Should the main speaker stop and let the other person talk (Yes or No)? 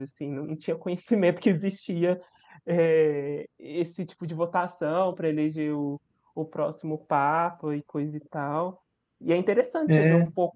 No